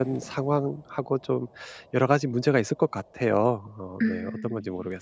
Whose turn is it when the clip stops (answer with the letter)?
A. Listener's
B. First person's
A